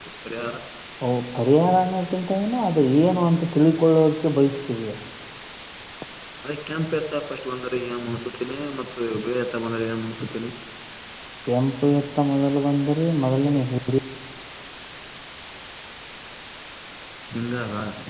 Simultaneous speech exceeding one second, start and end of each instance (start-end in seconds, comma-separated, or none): none